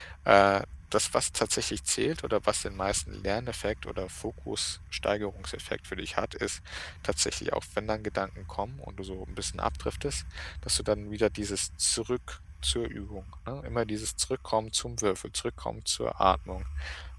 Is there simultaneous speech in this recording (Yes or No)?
No